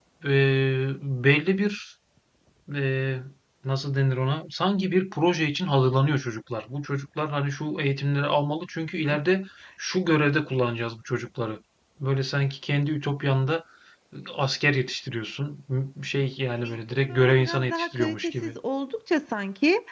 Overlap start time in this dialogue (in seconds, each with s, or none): 16.6 s